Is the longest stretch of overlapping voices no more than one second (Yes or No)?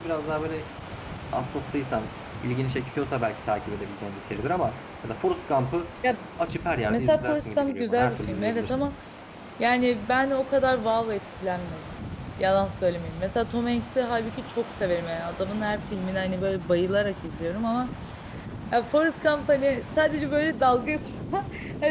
No